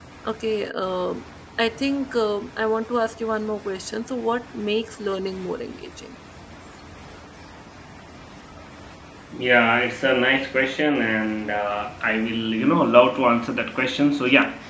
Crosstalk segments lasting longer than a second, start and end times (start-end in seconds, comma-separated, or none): none